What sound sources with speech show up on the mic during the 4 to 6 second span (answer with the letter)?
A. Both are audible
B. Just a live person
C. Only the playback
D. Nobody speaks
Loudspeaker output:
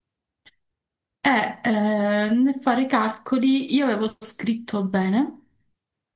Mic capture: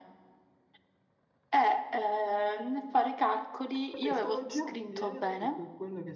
A